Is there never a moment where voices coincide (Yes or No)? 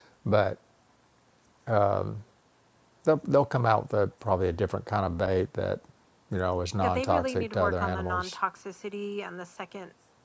No